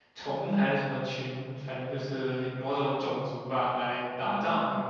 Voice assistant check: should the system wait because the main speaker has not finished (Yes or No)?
Yes